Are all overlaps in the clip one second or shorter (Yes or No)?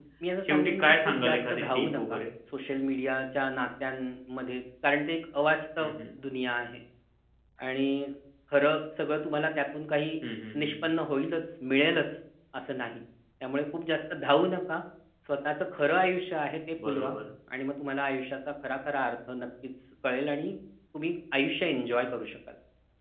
No